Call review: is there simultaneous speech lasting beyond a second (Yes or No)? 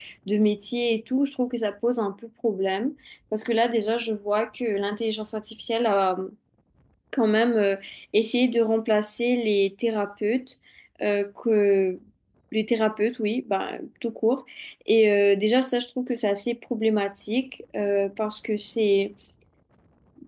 No